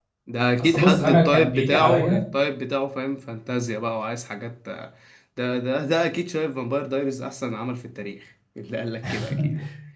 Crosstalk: present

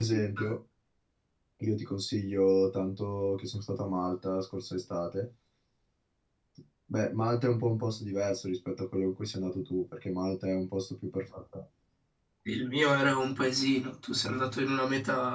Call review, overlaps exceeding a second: none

